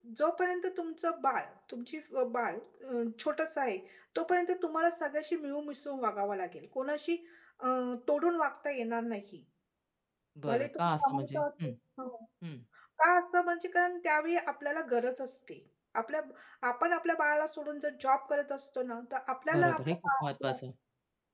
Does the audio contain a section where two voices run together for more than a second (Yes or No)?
Yes